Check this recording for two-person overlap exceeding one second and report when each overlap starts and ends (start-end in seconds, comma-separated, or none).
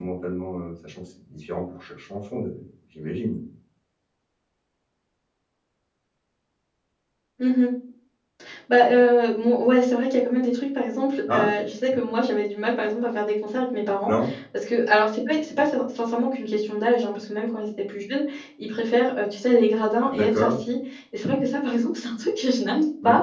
none